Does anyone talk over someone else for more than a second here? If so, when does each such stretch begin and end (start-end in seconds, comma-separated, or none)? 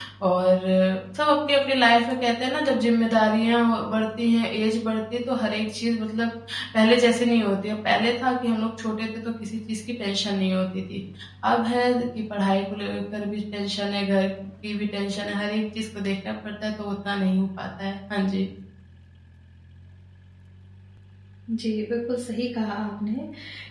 none